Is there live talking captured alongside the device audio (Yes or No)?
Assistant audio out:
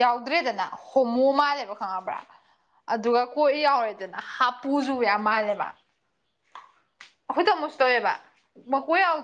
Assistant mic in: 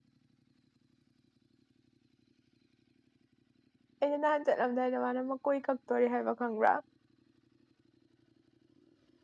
Yes